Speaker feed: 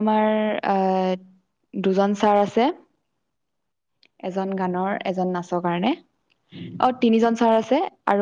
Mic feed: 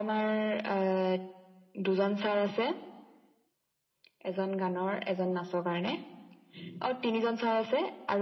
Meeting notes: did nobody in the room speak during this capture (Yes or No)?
Yes